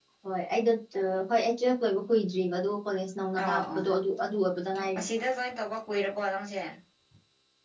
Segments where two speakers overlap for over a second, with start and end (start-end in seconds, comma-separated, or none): none